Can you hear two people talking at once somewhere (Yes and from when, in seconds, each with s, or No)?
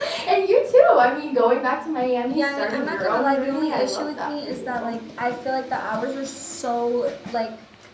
Yes, from 2.3 s